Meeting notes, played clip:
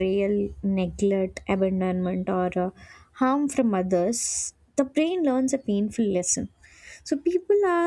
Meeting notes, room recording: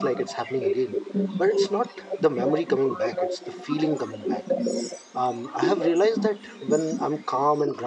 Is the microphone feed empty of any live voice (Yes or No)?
No